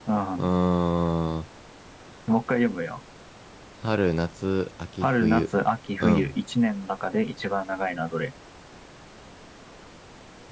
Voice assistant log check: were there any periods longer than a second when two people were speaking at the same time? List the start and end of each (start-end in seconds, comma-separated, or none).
none